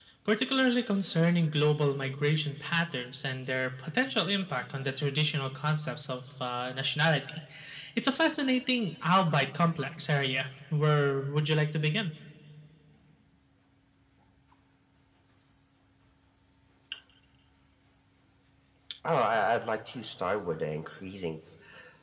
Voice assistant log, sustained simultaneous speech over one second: none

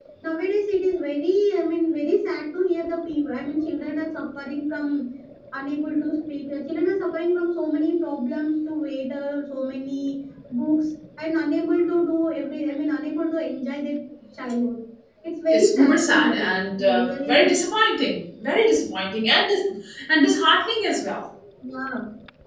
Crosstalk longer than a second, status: present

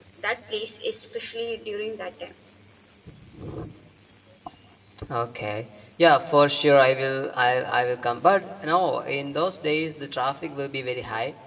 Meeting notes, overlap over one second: none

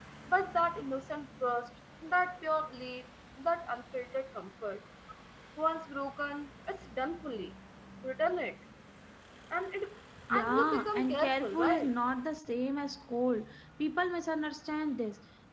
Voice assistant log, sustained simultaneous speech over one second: present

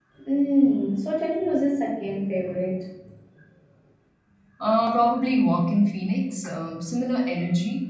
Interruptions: none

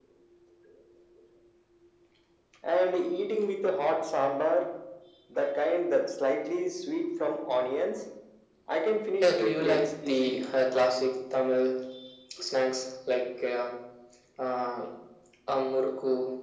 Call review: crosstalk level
present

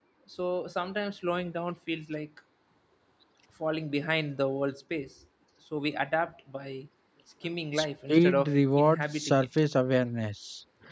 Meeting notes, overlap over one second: present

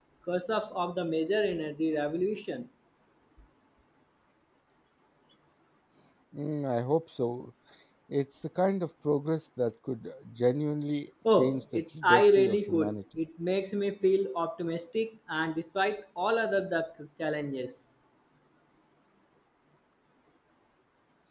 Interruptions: present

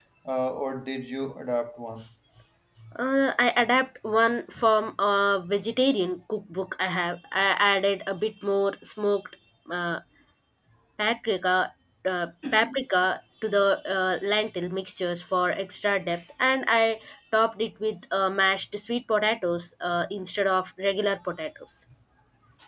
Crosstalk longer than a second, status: none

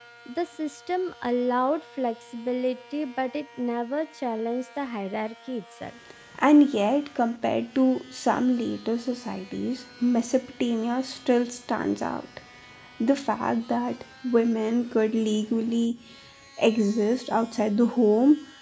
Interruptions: none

